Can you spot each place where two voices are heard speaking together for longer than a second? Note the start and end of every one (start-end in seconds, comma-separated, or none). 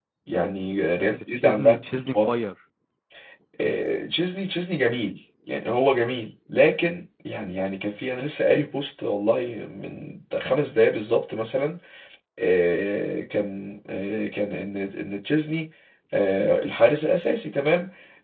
1.0-2.3